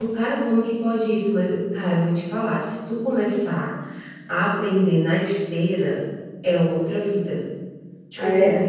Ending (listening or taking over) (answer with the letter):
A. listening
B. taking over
A